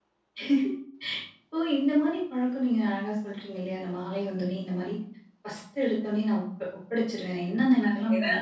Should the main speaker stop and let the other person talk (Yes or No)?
No